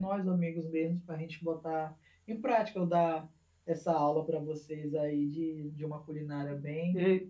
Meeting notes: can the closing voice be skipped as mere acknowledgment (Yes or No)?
No